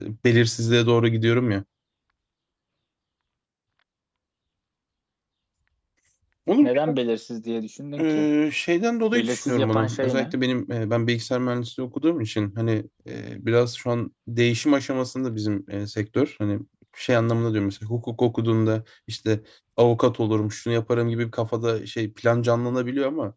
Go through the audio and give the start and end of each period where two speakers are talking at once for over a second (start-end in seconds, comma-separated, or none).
9.1-10.3